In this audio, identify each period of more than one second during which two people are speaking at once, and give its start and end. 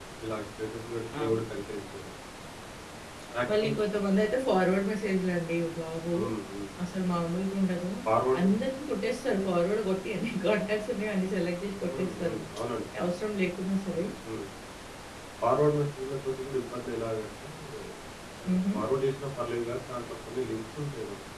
none

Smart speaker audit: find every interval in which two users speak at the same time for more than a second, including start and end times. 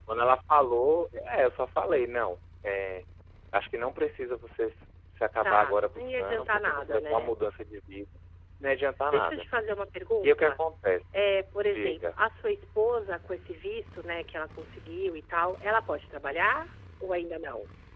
5.4-7.3

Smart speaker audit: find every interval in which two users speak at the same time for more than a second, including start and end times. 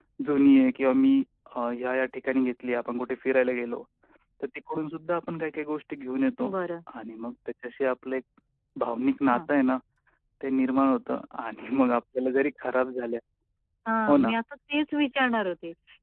none

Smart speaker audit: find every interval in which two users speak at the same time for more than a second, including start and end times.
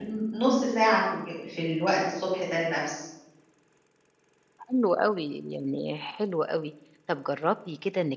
none

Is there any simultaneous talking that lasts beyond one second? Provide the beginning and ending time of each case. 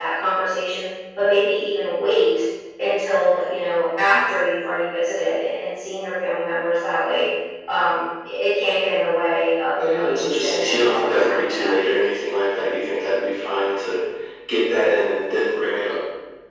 9.9-11.8

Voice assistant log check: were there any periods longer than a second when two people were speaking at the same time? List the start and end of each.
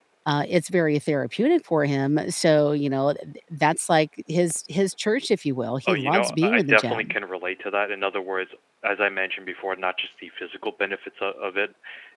5.9-7.1

